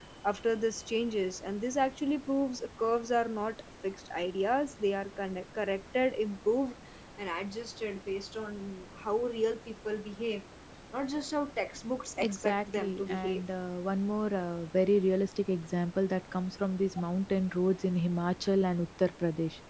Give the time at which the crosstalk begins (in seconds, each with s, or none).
12.2 s